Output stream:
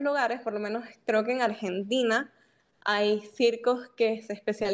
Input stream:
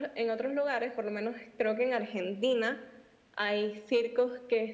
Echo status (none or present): present